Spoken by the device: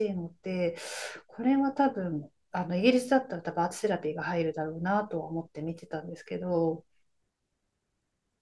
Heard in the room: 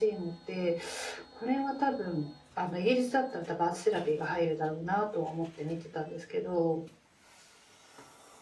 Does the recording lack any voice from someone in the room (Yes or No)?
Yes